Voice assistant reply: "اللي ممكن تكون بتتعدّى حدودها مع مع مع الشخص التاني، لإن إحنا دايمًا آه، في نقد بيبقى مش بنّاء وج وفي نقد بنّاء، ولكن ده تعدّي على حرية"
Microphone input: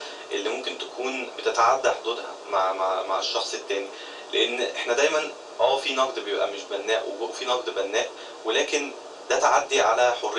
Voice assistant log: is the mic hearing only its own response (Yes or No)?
Yes